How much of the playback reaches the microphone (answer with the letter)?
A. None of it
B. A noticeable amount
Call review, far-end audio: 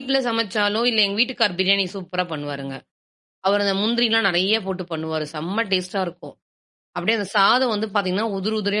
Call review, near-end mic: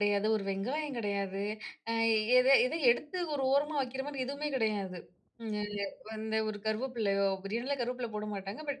A